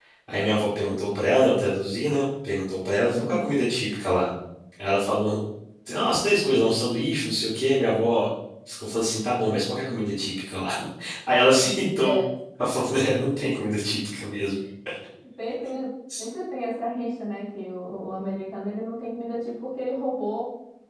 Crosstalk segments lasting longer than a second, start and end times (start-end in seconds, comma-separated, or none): none